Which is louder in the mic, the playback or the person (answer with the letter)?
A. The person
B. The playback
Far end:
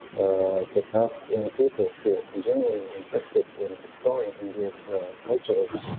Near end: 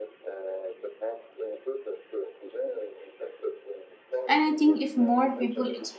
A